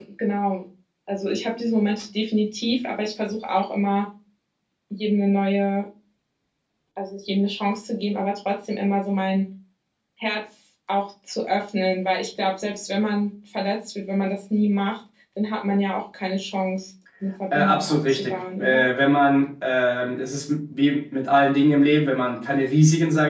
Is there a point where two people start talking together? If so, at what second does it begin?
17.5 s

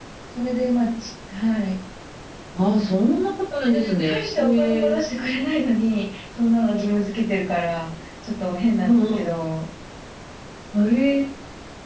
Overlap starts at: 3.6 s

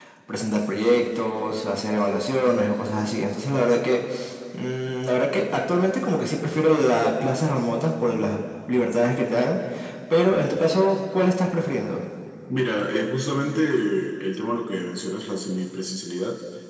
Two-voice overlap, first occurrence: none

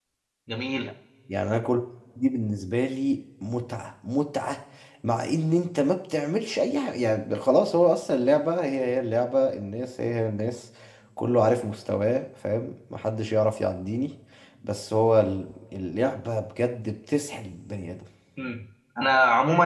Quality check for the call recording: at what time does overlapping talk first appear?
none

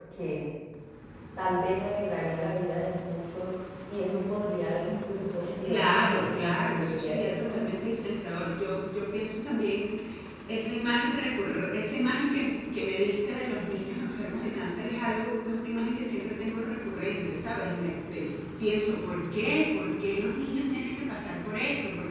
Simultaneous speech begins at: 5.5 s

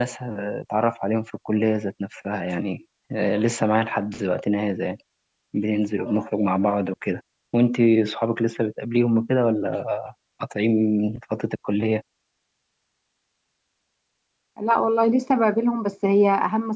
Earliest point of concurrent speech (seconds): none

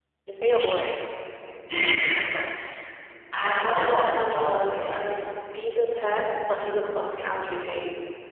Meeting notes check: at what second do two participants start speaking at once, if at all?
3.6 s

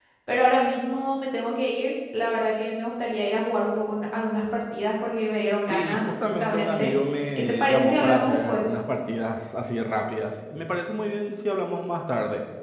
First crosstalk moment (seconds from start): 5.6 s

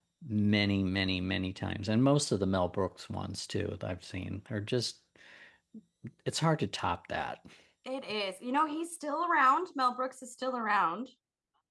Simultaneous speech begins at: none

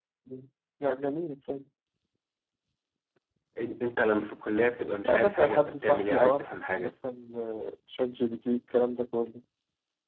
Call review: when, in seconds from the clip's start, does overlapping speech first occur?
5.0 s

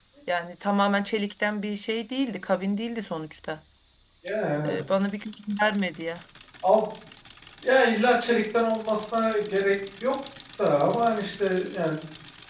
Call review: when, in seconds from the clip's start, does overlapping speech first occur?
none

